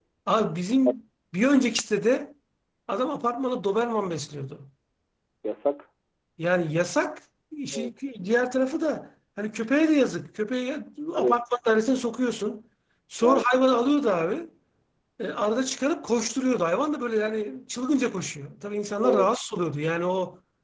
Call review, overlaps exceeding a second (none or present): none